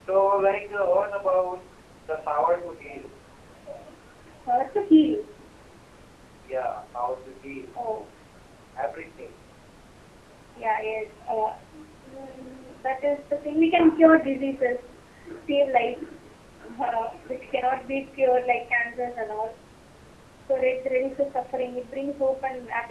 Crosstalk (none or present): none